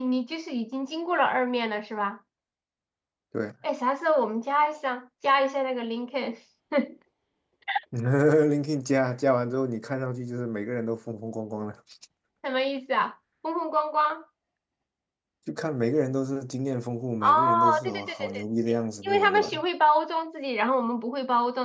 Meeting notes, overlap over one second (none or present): present